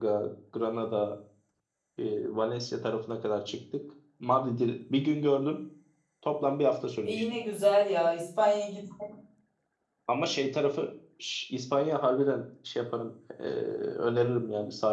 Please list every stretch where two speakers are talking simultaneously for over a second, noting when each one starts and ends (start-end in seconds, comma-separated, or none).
none